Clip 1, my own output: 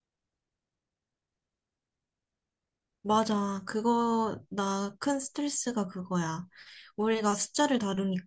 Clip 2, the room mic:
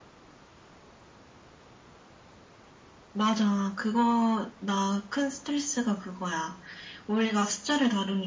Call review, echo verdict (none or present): present